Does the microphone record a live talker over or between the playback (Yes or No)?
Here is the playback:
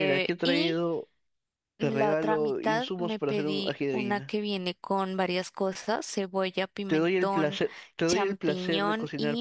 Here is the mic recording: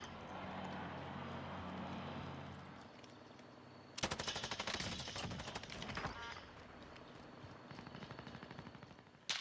No